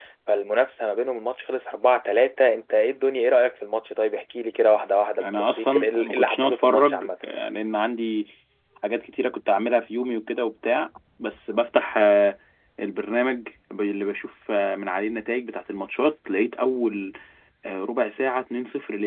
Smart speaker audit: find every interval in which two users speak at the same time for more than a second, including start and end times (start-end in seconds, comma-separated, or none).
5.2-7.1